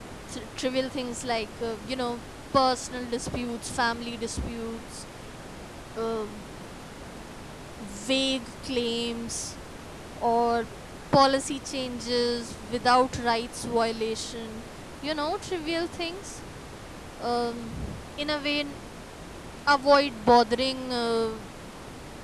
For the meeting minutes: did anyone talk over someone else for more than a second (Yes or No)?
No